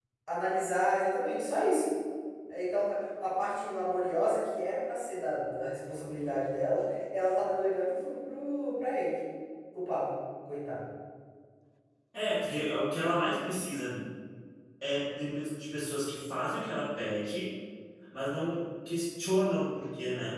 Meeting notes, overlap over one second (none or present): none